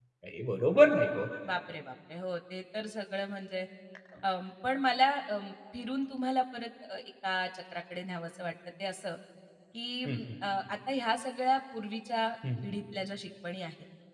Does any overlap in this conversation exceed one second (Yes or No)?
No